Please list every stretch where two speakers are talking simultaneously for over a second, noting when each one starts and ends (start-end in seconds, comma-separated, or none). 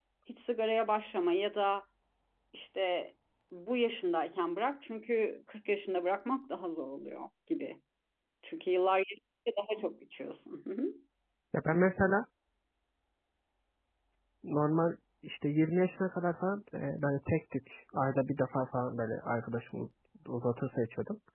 none